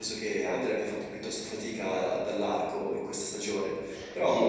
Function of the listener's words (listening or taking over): taking over